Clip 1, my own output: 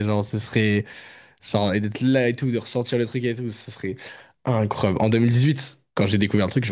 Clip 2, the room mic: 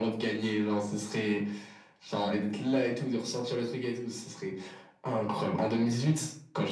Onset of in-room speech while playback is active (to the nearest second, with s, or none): none